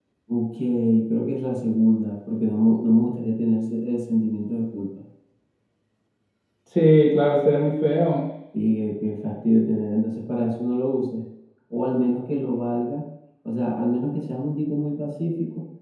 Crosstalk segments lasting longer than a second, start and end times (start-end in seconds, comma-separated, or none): none